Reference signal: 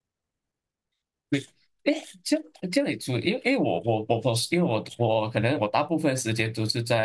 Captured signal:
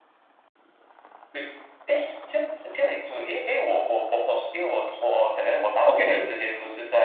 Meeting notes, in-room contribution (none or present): present